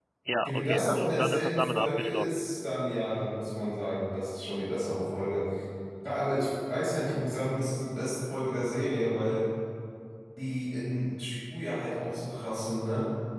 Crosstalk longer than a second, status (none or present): present